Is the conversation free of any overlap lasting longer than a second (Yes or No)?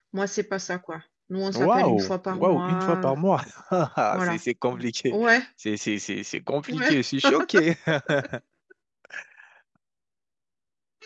No